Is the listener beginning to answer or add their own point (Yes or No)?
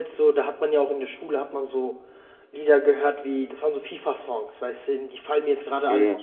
No